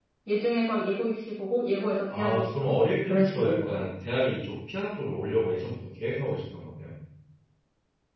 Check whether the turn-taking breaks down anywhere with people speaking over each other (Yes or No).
Yes